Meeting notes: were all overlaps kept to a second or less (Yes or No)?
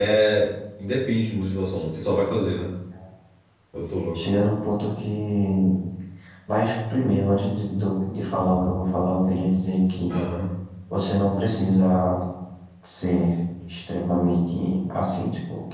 Yes